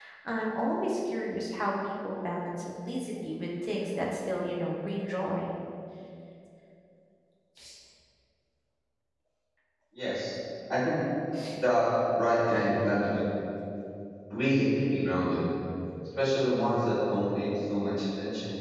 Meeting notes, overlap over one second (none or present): none